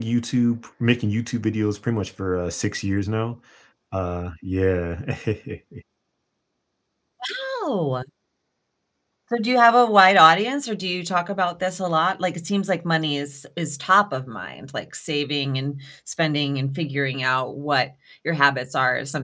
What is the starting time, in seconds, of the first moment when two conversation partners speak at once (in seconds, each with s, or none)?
none